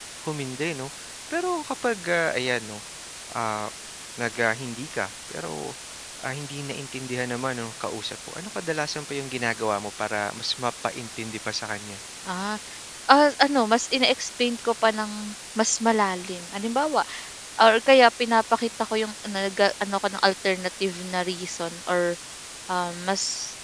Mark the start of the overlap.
none

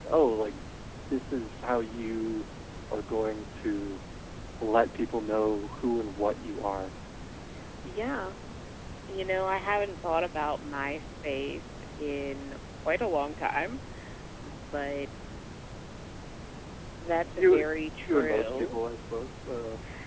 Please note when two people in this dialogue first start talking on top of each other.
17 s

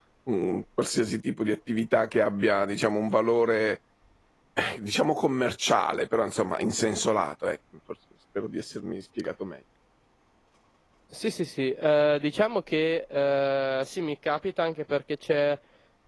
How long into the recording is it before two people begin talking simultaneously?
none

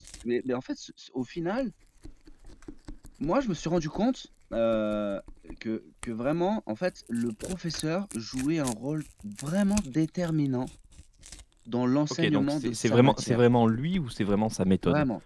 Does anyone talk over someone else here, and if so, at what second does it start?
12 s

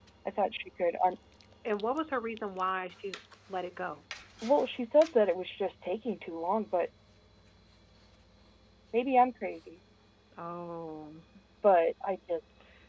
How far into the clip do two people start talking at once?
none

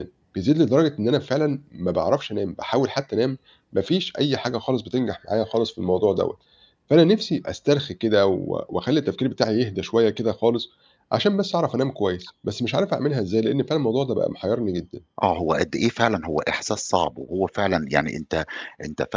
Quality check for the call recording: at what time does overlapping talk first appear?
none

